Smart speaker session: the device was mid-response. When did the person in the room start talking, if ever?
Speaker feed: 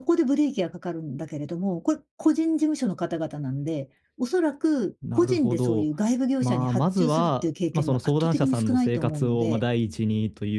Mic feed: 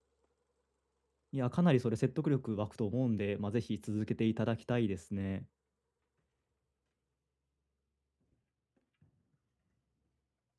1 s

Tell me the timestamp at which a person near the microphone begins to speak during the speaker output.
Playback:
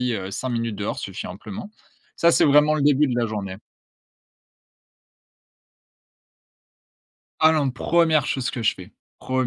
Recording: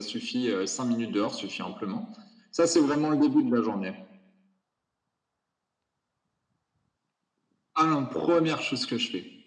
none

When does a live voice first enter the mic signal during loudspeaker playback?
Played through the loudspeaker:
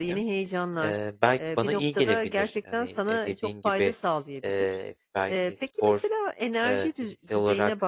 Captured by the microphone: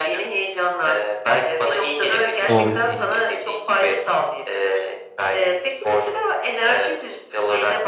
2 s

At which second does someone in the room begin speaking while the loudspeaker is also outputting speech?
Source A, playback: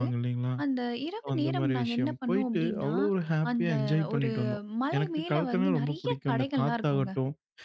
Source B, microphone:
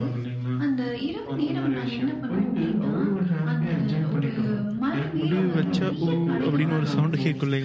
5 s

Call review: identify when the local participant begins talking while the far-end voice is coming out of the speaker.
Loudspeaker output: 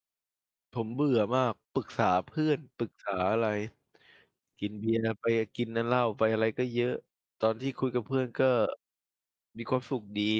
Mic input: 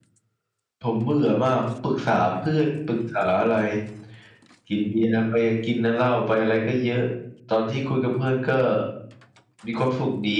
none

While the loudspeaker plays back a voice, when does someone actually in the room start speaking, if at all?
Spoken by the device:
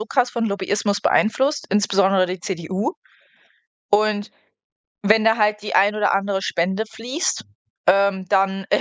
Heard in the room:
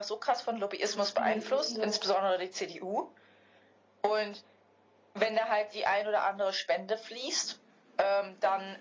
1 s

